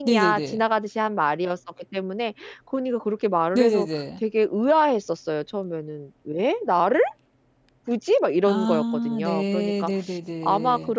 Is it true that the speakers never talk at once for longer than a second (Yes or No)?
No